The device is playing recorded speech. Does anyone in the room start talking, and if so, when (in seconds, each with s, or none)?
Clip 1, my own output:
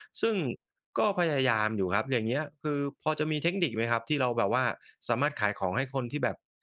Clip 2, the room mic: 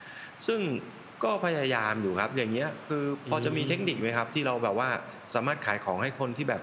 3.2 s